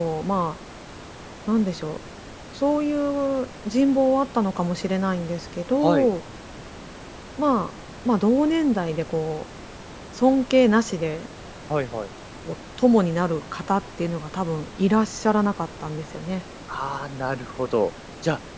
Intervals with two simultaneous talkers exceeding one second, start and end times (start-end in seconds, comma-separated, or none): none